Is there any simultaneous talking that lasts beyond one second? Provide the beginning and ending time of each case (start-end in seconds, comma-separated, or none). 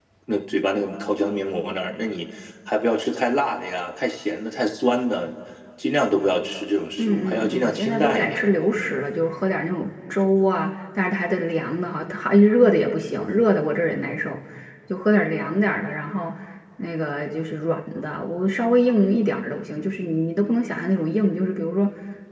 7.0-8.9